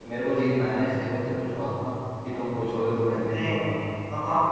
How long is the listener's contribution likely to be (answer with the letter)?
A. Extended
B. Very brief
A